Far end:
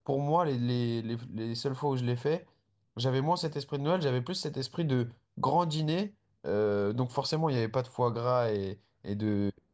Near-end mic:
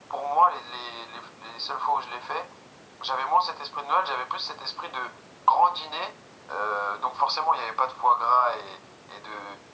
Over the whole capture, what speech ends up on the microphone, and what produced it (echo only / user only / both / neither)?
echo only